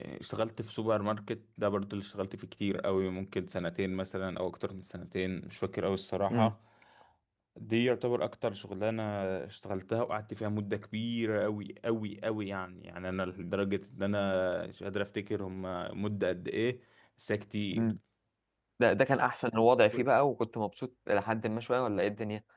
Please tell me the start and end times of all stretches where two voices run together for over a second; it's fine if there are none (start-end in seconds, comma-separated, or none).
none